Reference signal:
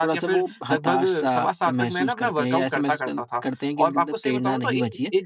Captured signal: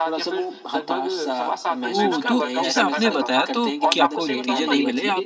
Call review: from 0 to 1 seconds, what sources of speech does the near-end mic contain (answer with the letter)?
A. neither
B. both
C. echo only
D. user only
C